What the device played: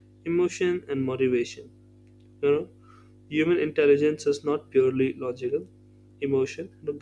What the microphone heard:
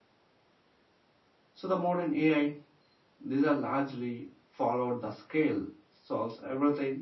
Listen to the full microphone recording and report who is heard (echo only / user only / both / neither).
user only